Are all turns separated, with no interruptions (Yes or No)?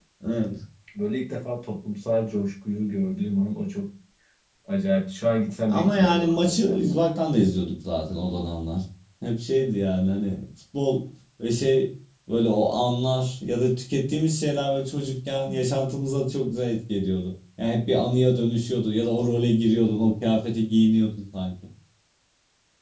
No